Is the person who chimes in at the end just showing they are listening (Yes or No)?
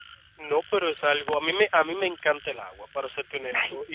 Yes